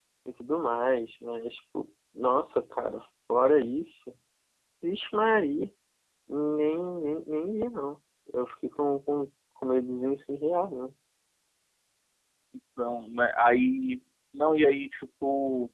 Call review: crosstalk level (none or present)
none